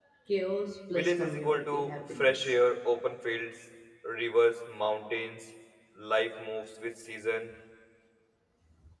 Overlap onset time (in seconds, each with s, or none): 0.9 s